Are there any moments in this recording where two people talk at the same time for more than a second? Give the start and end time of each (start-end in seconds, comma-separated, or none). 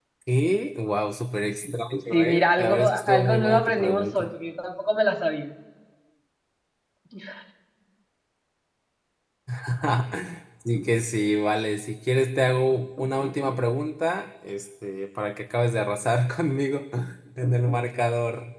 2.1-4.3